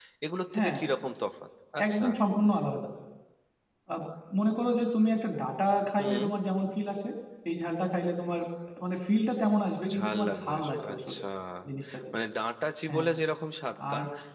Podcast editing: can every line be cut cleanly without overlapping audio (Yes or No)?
No